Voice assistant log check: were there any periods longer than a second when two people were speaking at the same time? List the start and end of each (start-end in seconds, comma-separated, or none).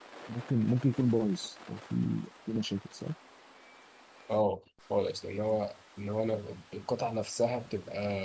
none